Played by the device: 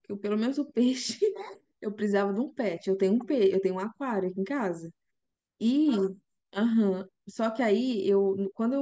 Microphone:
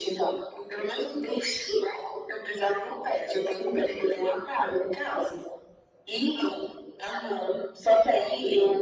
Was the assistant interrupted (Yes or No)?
No